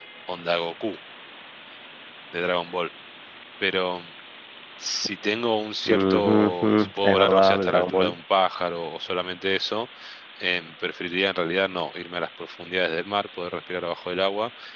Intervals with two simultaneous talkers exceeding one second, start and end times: 5.9-8.1

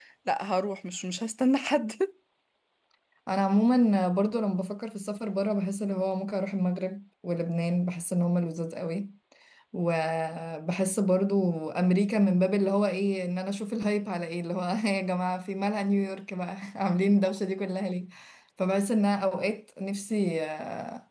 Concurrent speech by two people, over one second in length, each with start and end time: none

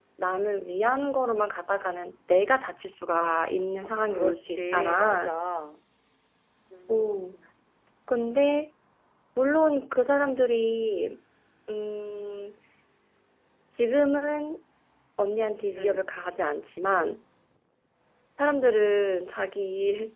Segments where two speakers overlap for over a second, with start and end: 3.8-5.3

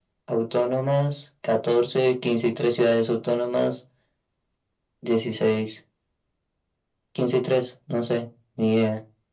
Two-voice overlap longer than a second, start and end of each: none

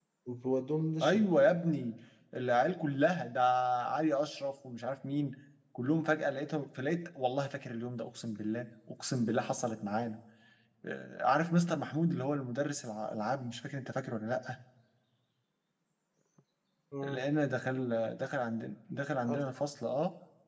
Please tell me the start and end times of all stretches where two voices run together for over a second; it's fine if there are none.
none

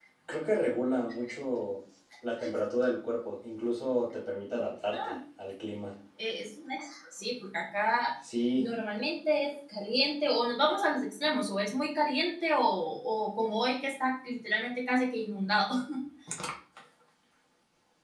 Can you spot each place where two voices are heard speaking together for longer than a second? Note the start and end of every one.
none

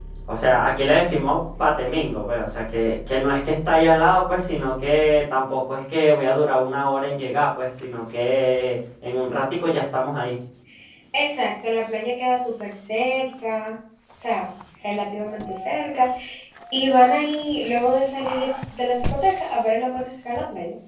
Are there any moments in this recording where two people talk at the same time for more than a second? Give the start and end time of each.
none

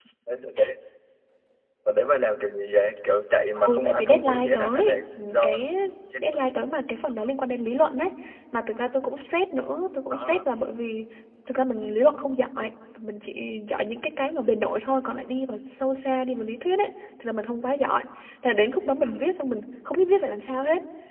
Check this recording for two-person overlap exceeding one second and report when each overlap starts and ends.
3.6-5.5

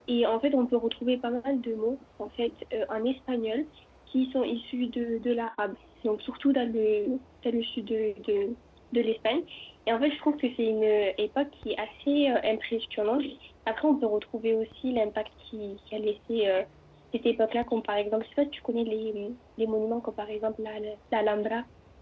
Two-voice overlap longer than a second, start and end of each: none

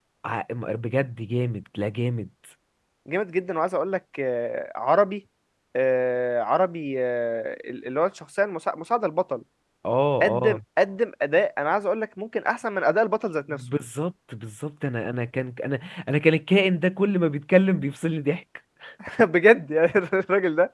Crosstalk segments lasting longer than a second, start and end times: none

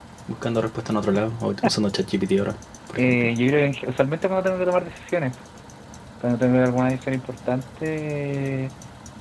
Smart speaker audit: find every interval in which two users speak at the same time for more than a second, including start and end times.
none

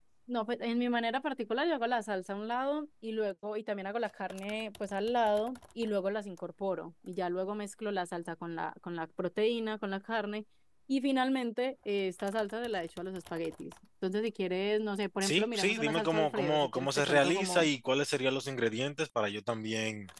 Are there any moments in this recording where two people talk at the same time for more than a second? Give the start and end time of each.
15.2-17.7

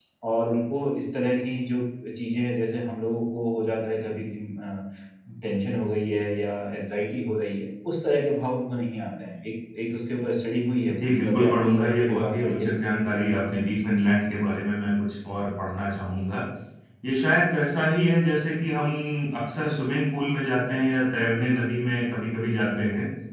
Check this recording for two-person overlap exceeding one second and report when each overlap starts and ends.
10.9-12.8

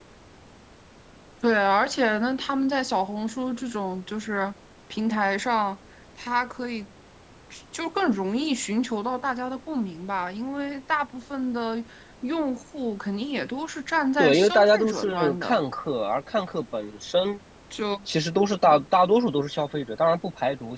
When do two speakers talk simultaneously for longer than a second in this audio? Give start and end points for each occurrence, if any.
14.2-15.6

